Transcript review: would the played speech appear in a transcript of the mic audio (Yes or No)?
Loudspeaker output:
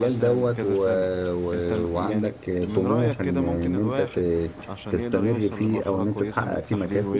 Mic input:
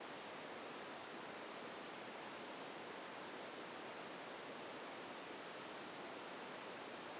No